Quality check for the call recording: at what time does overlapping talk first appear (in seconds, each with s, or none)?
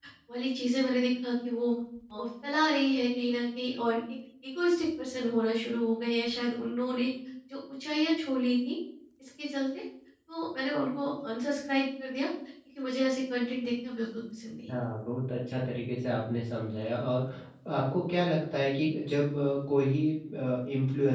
none